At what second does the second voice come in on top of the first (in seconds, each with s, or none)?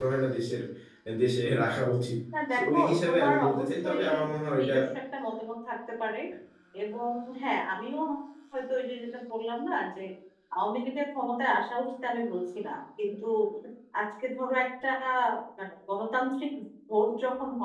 2.5 s